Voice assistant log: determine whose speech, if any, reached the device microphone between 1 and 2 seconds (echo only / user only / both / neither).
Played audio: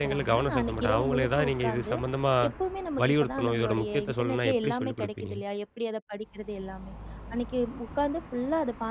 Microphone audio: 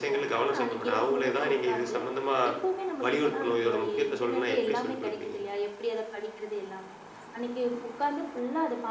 echo only